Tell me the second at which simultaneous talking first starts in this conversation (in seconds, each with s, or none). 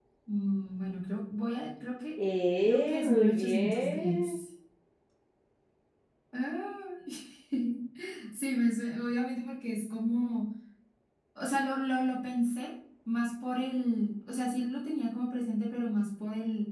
2.6 s